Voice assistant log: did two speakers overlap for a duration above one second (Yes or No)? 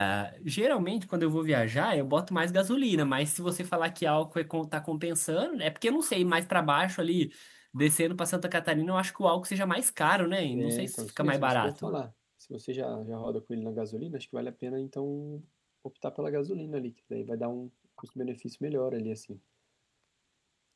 Yes